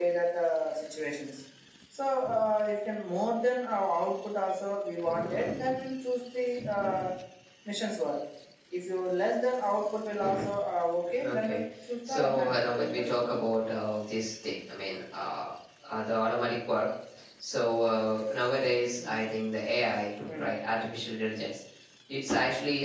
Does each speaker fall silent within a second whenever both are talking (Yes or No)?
No